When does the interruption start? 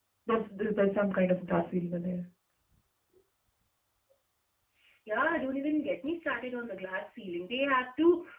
none

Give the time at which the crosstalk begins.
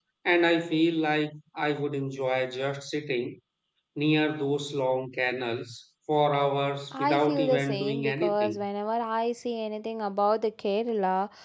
6.9 s

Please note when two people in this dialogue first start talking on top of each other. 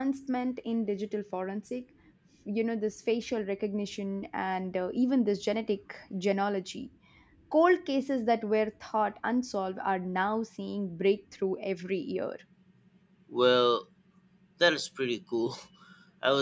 none

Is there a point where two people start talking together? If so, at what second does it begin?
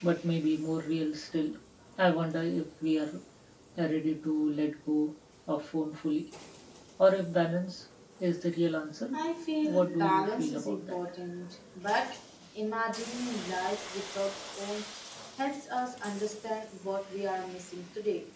9.6 s

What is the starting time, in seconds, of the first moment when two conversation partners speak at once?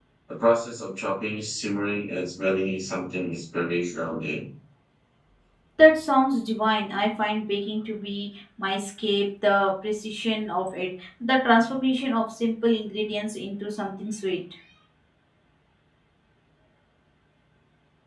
none

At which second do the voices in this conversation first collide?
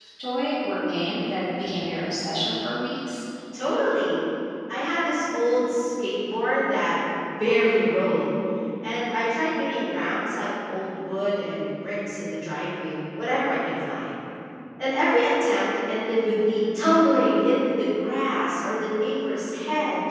none

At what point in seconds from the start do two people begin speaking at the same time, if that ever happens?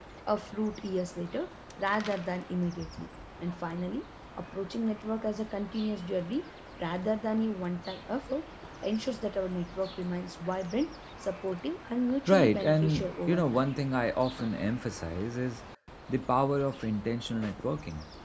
12.3 s

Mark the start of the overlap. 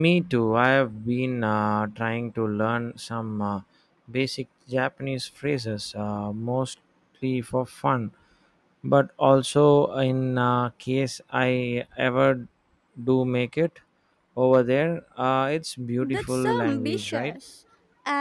16.0 s

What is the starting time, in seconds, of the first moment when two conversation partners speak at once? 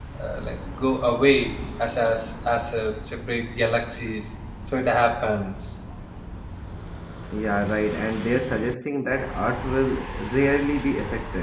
none

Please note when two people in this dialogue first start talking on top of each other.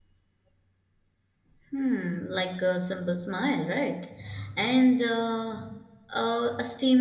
none

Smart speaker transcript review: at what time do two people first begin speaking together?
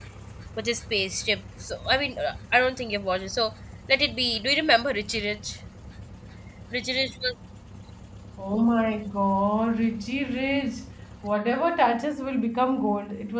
none

